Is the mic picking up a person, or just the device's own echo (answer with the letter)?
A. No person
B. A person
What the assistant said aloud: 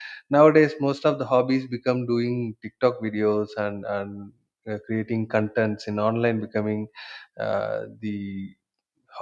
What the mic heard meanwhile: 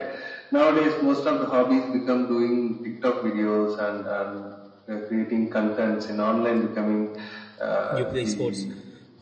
B